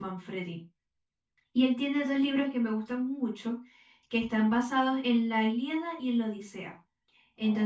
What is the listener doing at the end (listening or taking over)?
listening